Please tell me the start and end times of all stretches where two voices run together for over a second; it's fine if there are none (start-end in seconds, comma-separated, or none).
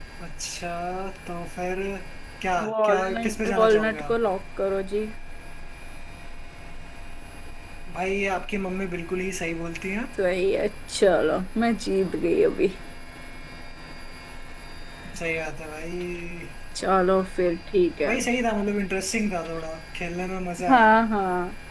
2.6-4.2